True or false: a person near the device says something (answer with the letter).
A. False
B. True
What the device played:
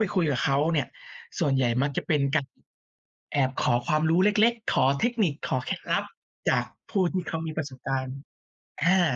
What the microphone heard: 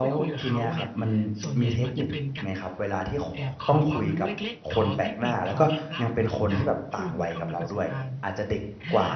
B